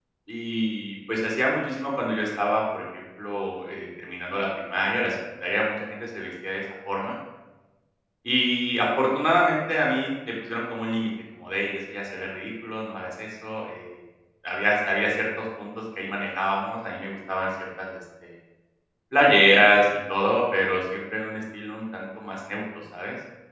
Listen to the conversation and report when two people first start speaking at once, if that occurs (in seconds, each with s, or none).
none